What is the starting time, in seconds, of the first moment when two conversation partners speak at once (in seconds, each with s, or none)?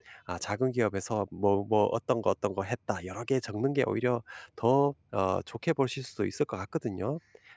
none